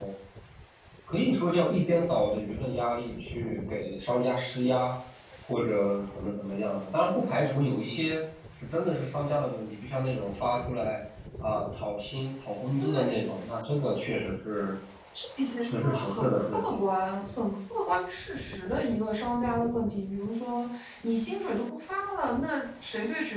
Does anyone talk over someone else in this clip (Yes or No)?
Yes